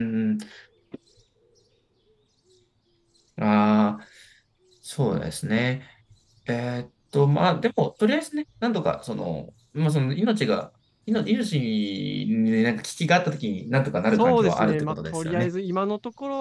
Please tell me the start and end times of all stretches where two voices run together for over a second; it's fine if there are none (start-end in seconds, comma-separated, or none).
14.2-15.5